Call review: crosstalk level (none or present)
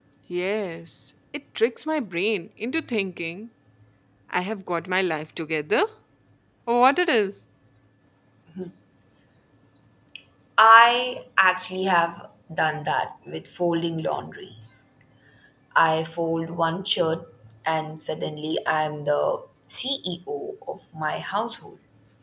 none